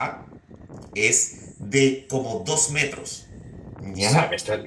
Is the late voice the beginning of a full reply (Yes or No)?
Yes